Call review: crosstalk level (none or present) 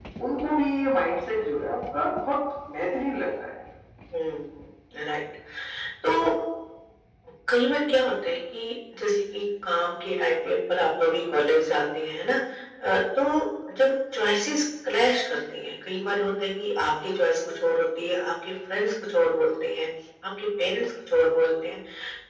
none